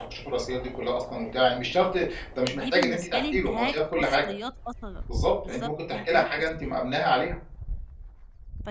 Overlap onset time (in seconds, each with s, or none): 2.5 s